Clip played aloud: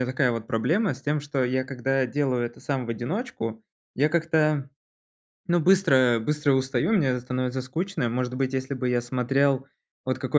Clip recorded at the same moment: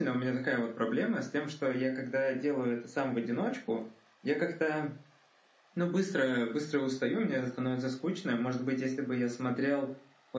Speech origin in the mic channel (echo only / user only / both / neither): echo only